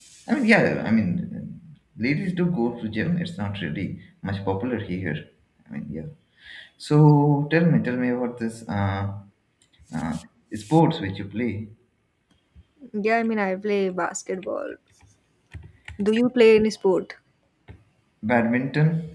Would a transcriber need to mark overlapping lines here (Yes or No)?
No